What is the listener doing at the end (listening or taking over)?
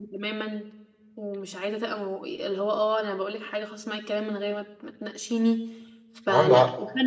listening